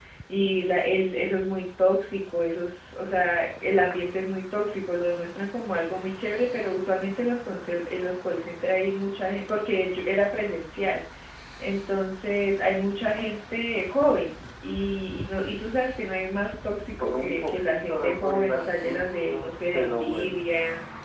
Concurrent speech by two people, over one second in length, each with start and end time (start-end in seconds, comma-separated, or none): 17.0-20.5